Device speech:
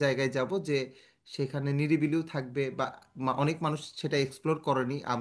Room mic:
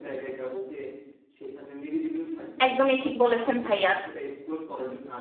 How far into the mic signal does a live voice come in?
2.6 s

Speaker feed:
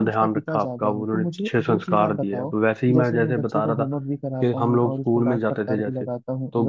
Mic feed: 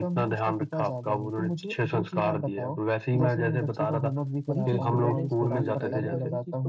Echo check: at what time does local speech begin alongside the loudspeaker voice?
4.5 s

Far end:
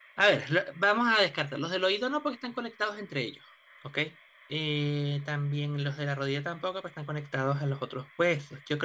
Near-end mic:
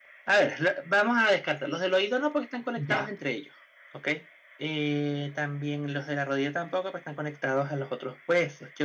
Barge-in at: 2.8 s

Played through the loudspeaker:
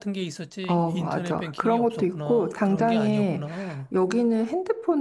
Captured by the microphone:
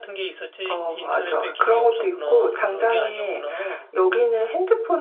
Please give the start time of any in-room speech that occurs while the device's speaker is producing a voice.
none

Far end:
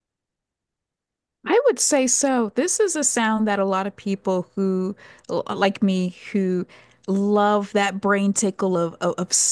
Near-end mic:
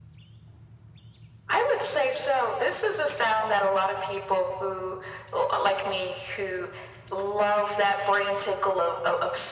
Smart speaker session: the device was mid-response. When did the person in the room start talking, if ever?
none

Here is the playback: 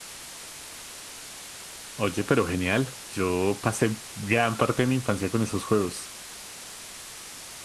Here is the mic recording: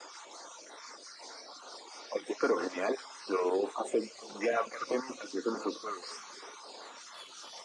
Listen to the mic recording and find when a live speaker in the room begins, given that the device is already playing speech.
none

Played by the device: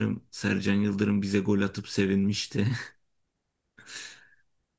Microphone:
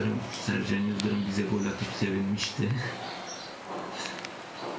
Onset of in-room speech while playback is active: none

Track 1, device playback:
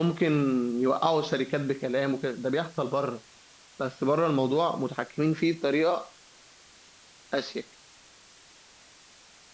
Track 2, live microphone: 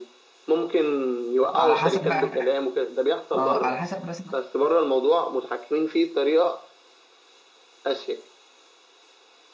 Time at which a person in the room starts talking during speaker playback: 1.6 s

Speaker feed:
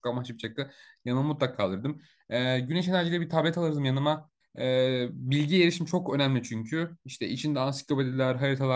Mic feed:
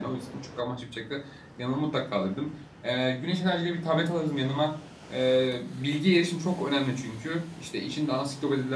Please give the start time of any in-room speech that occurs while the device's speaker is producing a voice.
none

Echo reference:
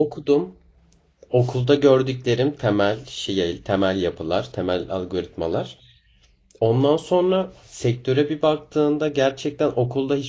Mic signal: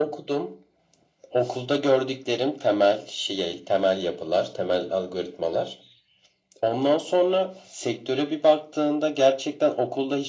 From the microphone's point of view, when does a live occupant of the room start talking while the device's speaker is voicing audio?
none

